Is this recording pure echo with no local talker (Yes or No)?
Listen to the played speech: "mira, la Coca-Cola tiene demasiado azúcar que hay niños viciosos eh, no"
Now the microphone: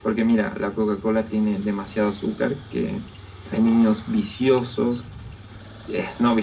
Yes